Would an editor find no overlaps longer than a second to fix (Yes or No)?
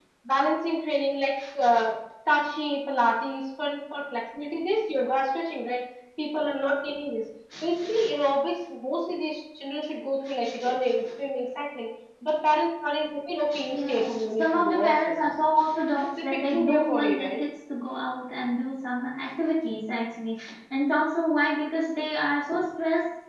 No